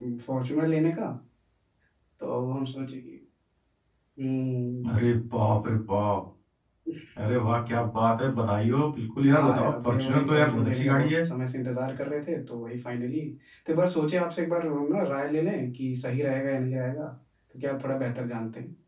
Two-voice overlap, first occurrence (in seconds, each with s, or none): 9.3 s